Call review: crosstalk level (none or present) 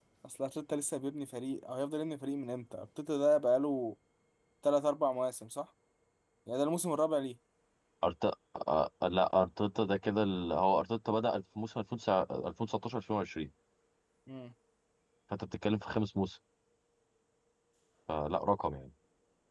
none